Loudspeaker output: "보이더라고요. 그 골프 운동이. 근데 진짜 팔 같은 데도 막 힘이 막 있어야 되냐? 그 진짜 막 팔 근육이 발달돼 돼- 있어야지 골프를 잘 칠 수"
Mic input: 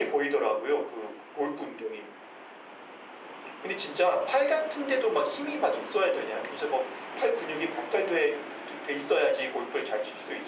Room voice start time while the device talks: none

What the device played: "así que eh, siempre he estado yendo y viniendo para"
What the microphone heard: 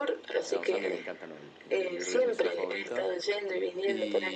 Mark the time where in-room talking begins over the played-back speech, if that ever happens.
0.4 s

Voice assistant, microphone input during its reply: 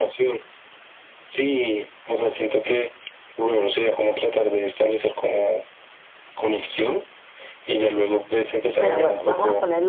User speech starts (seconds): 8.8 s

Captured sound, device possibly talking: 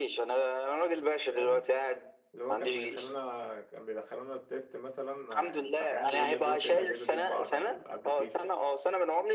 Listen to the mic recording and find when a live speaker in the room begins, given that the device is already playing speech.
1.3 s

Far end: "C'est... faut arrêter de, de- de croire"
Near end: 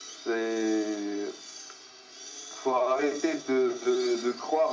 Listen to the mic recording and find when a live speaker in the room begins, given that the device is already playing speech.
none

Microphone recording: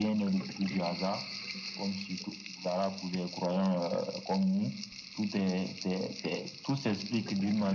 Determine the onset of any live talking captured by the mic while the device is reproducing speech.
none

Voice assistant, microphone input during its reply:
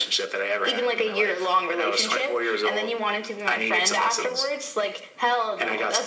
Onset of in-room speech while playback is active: none

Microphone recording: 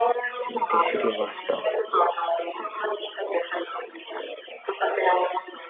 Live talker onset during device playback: 0.3 s

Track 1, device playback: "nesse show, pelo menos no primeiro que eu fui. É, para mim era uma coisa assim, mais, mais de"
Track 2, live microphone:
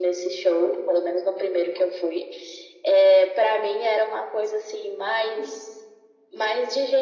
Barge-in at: none

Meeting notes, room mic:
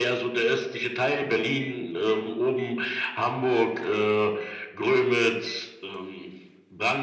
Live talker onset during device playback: none

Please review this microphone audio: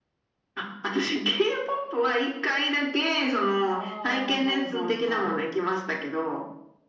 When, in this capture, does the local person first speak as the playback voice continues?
3.7 s

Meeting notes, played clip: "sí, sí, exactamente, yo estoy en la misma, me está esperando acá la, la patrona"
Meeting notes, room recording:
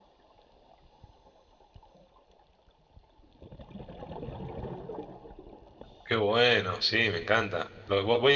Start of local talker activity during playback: 6.0 s

